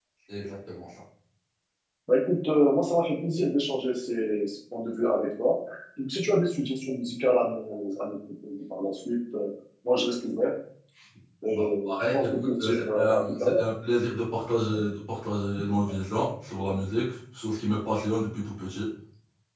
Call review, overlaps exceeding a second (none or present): present